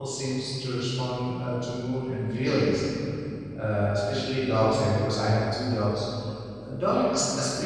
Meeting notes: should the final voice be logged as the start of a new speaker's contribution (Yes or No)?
No